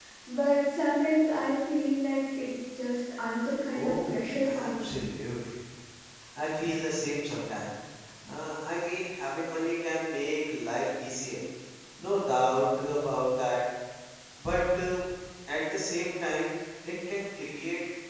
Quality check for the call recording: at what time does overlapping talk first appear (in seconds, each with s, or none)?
3.7 s